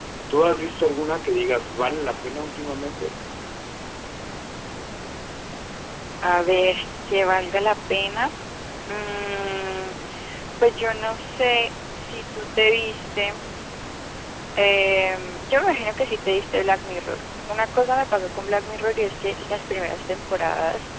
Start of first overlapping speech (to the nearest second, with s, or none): none